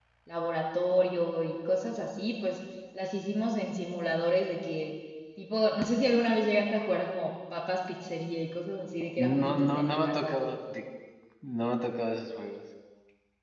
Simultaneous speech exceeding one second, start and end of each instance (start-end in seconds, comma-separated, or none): 9.3-10.5